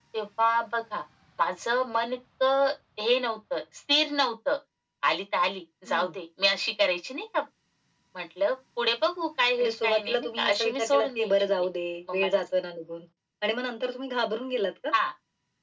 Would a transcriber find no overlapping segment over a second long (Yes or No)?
No